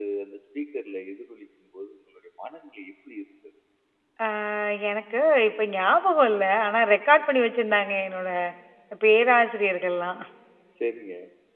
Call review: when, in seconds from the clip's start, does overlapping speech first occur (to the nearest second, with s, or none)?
none